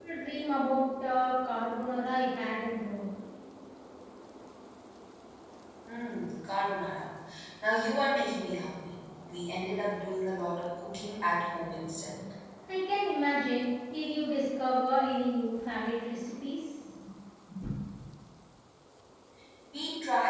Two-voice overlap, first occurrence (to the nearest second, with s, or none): none